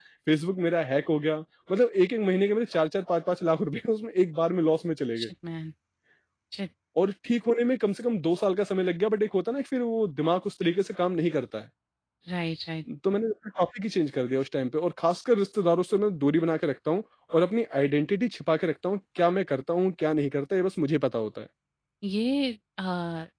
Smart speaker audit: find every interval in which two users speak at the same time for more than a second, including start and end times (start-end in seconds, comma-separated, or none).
none